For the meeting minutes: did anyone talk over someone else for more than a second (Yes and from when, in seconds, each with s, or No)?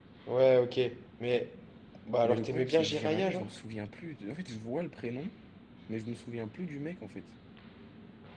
Yes, from 2.2 s